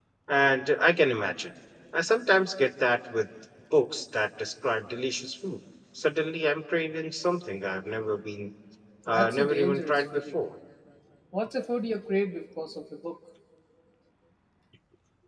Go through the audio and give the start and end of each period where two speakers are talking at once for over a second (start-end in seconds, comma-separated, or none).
9.1-10.4